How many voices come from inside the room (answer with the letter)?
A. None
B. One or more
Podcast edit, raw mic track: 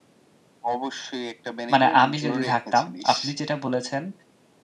B